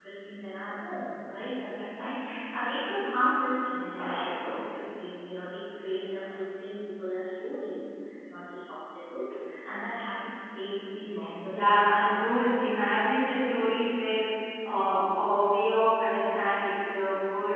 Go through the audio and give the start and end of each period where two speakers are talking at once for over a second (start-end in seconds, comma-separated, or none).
11.5-13.0